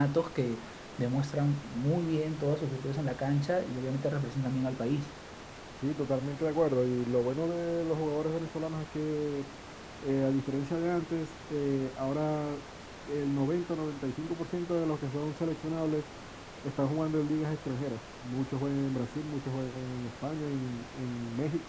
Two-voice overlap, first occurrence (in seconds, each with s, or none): none